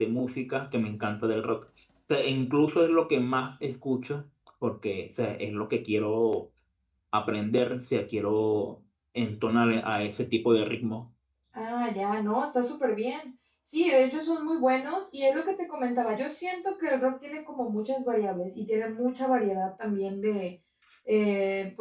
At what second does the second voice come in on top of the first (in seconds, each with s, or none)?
none